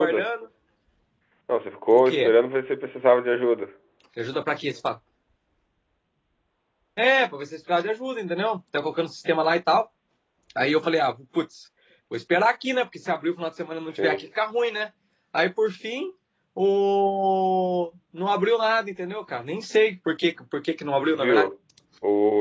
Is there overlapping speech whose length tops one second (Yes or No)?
No